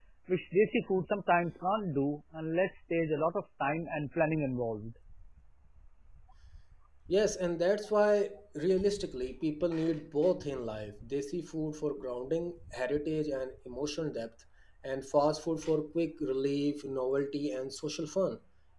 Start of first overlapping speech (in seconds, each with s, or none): none